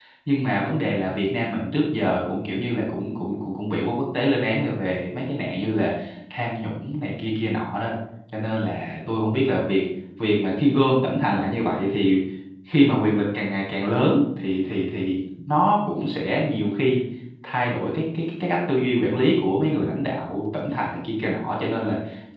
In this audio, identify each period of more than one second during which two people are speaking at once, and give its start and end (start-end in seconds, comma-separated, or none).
none